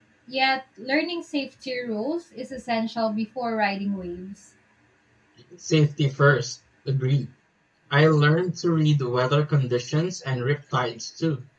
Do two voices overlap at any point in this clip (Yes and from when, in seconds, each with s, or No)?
No